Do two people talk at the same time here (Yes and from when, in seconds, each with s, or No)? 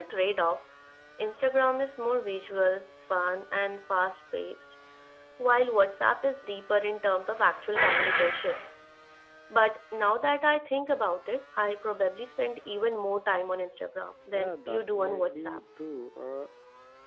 Yes, from 14.3 s